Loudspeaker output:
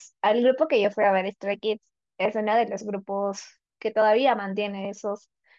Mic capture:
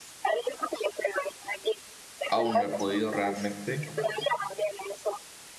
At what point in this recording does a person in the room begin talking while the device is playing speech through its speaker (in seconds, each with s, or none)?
2.3 s